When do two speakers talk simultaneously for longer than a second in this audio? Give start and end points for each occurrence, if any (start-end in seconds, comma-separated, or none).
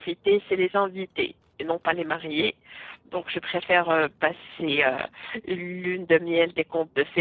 none